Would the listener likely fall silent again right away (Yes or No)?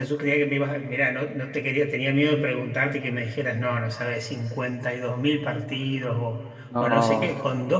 Yes